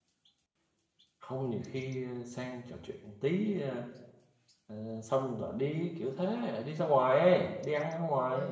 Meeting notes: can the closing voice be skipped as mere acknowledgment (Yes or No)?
No